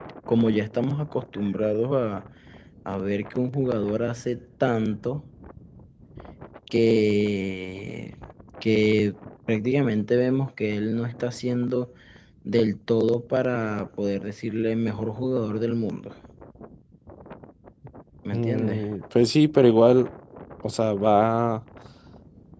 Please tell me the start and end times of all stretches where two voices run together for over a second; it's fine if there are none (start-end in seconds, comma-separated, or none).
none